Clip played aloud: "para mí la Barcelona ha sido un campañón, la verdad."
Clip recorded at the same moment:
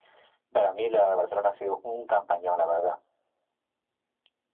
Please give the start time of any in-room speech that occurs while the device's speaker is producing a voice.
none

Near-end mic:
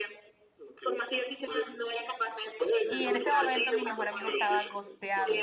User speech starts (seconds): 2.9 s

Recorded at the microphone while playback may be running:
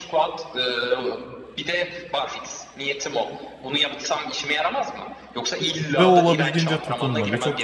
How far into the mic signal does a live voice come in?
6.0 s

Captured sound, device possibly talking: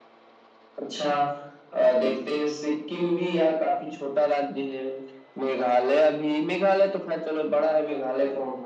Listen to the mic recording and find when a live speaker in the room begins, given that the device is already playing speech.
none

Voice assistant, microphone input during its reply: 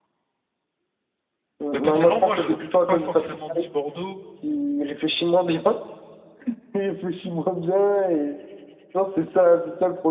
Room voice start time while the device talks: 1.7 s

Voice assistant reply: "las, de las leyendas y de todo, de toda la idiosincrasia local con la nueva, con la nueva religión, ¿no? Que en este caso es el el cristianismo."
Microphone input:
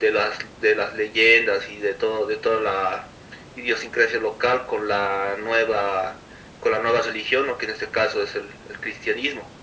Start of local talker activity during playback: none

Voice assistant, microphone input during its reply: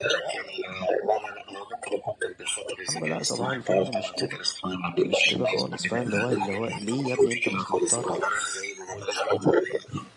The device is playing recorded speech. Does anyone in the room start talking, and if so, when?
2.8 s

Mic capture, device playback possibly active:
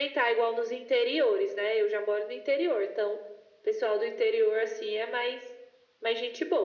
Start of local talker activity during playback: none

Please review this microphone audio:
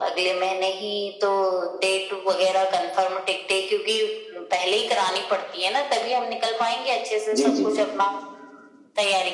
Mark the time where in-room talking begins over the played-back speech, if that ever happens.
7.4 s

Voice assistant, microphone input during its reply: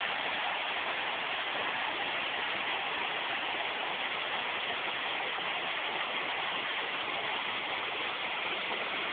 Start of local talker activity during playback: none

